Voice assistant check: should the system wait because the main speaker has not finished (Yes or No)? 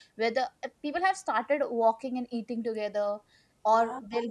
Yes